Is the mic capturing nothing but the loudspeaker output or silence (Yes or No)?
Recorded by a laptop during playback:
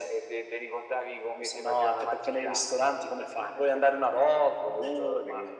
Yes